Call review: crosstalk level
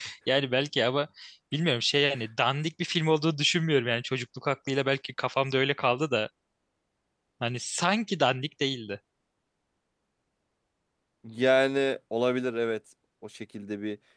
none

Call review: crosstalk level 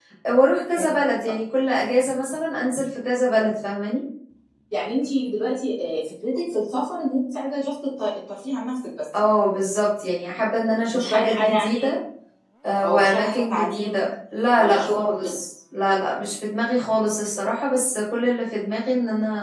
present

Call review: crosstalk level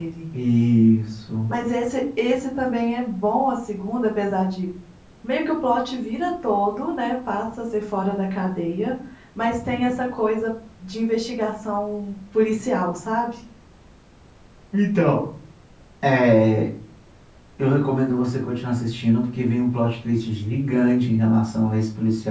none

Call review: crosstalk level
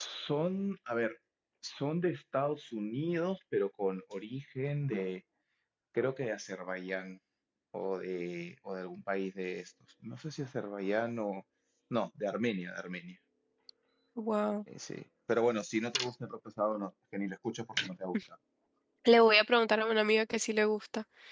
none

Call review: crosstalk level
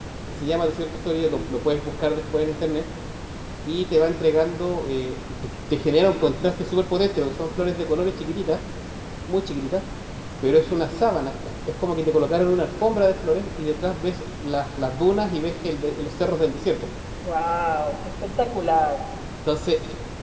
none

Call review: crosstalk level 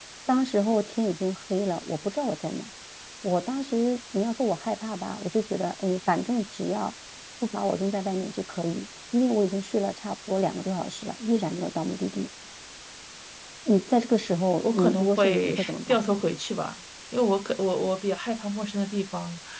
present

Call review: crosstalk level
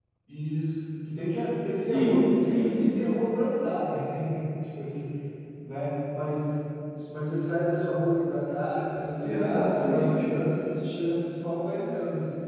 present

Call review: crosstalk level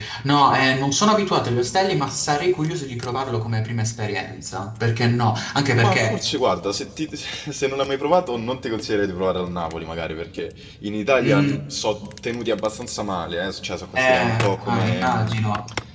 present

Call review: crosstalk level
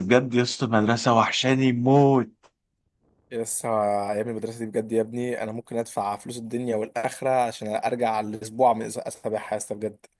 none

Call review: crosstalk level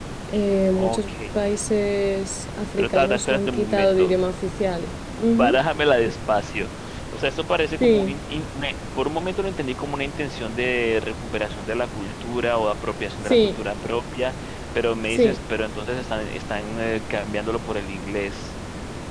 present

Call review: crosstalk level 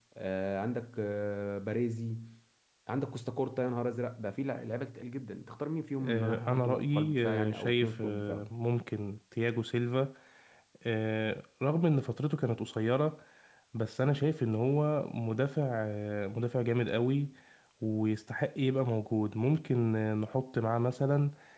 present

